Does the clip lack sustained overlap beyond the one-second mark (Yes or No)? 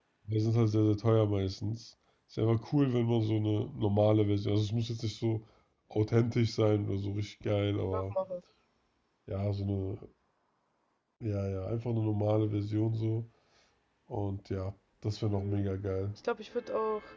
Yes